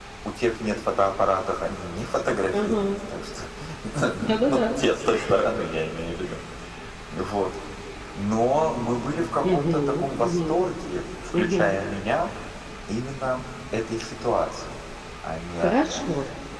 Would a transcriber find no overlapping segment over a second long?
No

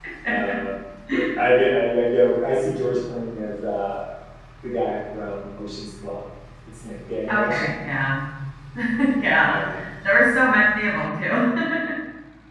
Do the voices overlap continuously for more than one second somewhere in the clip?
No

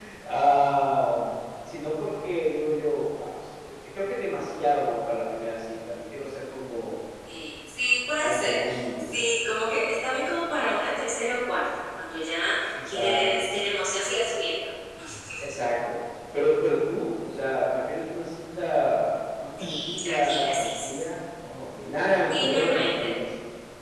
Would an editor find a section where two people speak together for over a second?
Yes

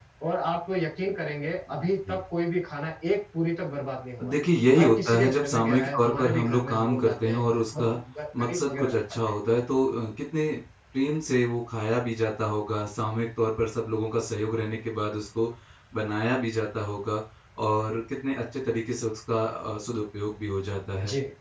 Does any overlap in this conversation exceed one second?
Yes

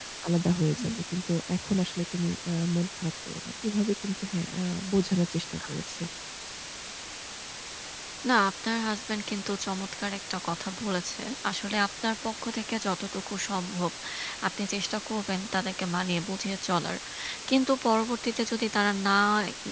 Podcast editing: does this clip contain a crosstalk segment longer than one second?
No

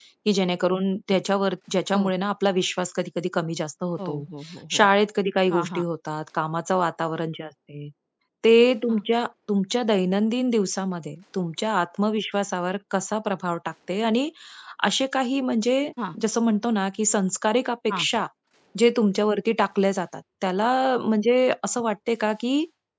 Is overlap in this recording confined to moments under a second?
Yes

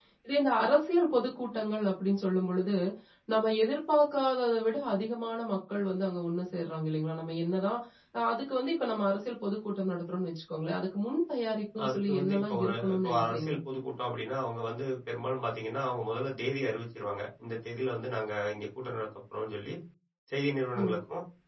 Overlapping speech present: Yes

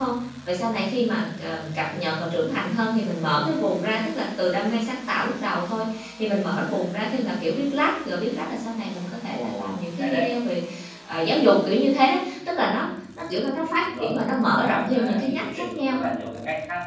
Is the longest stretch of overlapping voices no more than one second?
No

